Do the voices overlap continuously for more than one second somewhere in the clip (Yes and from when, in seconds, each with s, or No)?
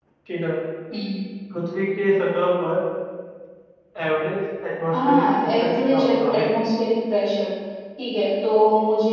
Yes, from 4.9 s